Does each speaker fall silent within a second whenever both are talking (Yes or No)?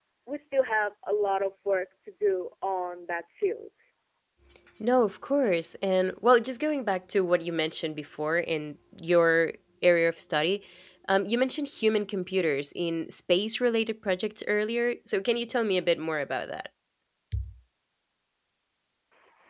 Yes